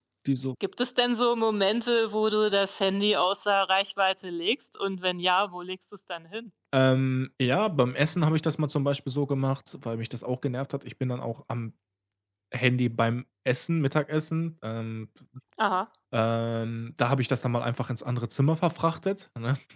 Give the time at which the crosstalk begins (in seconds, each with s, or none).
none